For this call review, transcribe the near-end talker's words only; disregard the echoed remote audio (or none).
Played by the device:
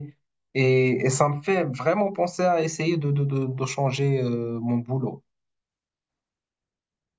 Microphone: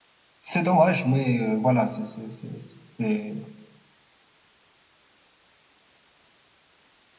C'est dommage, mais euh, voilà, c'est c'est c'est c'est c'est